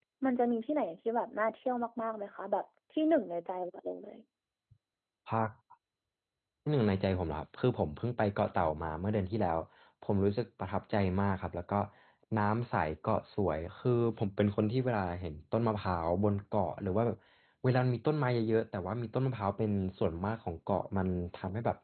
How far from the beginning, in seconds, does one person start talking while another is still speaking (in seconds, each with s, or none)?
none